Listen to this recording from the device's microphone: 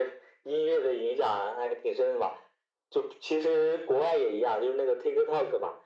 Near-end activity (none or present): none